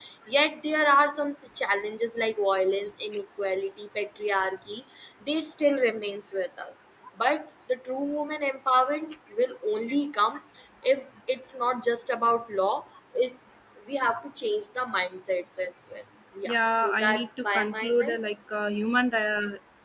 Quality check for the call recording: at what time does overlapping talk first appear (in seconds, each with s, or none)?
16.4 s